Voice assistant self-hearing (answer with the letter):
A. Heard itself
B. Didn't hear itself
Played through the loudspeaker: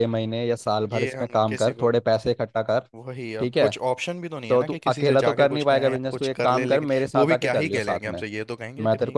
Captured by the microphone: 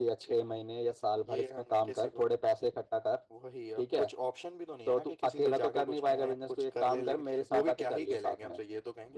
A